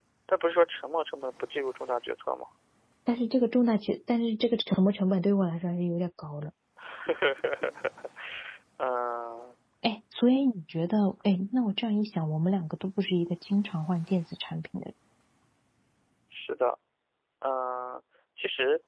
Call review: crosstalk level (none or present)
none